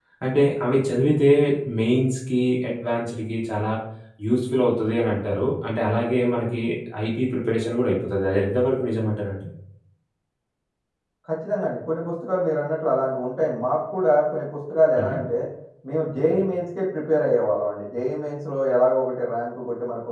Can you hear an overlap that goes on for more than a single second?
No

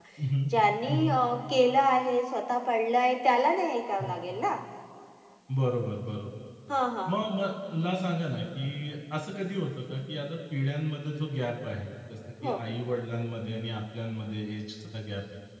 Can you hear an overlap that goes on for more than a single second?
No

